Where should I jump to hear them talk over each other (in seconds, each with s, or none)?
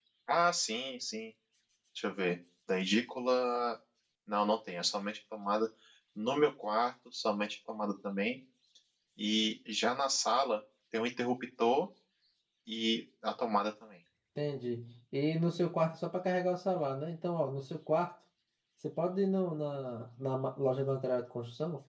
none